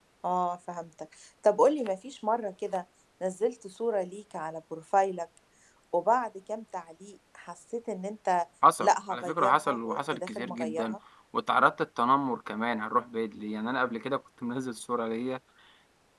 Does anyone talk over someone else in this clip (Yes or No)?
Yes